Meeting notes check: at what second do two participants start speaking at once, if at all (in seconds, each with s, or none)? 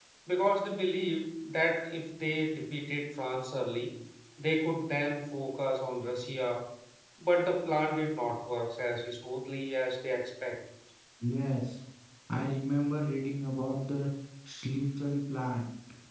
none